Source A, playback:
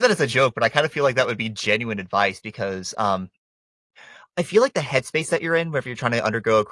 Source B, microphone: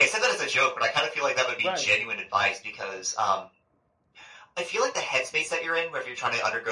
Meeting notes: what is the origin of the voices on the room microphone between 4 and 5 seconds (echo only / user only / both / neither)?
echo only